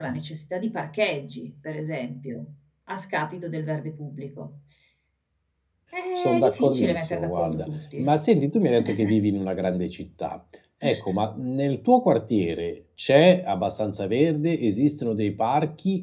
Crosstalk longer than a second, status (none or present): present